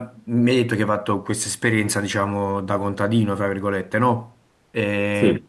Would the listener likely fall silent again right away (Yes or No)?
Yes